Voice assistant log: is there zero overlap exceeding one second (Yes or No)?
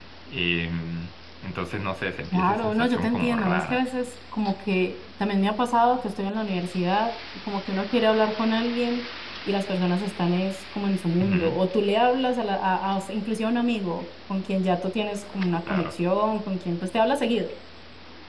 No